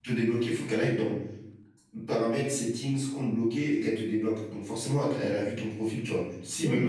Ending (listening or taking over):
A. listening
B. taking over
B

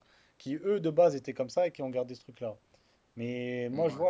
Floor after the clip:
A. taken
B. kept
B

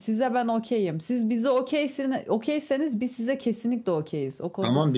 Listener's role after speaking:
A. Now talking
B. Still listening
A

